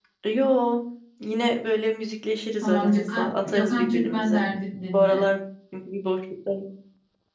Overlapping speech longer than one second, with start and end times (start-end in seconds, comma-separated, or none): 2.6-4.5